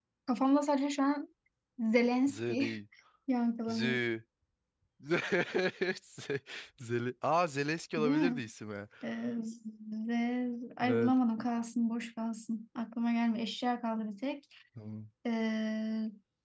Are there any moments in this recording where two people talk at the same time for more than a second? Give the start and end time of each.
none

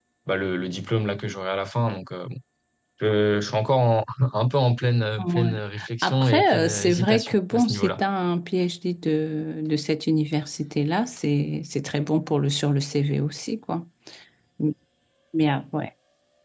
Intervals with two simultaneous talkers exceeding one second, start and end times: 6.0-8.0

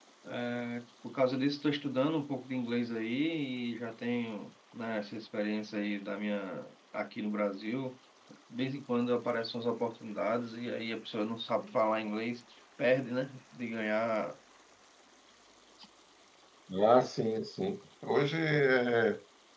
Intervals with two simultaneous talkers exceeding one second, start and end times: none

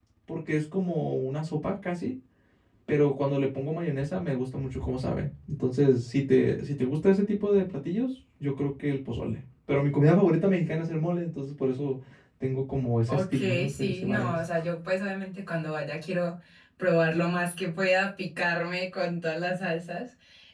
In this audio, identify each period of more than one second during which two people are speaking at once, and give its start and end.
13.1-14.4

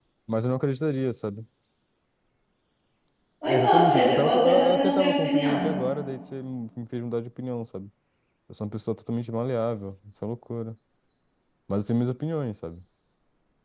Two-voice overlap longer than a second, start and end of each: 3.5-5.7

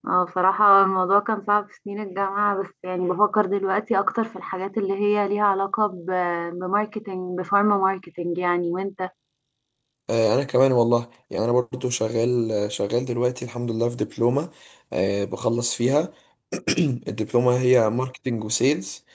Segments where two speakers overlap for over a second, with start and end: none

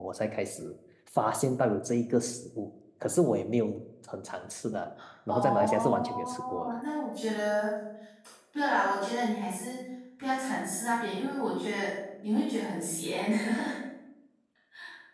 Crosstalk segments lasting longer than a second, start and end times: 5.3-6.8

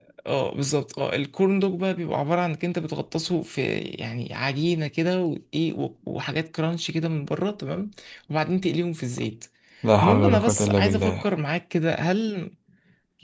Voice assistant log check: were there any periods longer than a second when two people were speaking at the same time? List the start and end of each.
10.0-11.3

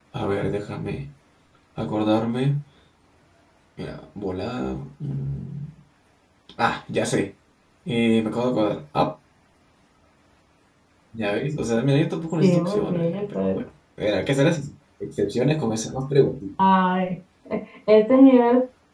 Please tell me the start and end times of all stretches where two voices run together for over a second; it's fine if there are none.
12.4-13.6

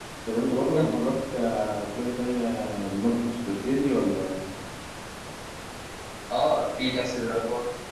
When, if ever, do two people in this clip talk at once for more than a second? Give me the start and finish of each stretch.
none

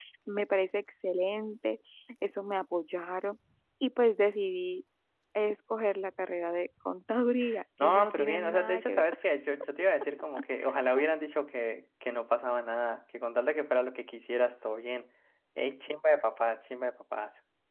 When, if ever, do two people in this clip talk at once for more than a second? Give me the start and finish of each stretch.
7.8-9.1

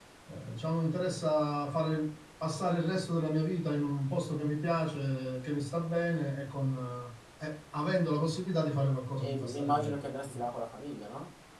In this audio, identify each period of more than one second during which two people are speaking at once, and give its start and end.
9.2-10.5

